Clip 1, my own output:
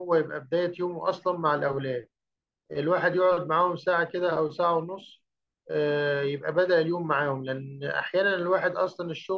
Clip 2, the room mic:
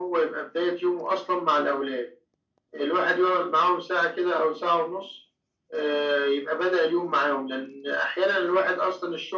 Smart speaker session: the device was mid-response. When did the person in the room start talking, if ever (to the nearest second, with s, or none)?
none